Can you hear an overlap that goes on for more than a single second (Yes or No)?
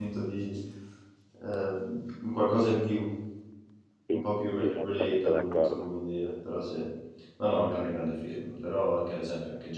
Yes